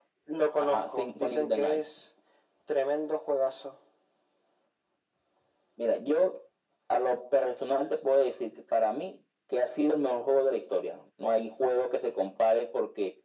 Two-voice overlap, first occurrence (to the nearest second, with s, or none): 1 s